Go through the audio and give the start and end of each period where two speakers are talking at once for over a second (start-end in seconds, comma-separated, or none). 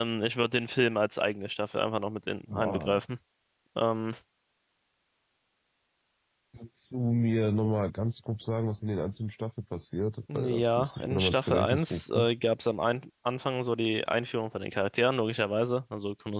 10.3-12.3